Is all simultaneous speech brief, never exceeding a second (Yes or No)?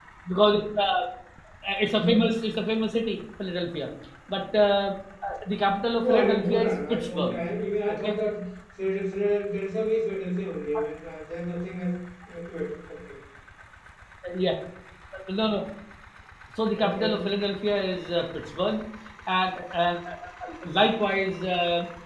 No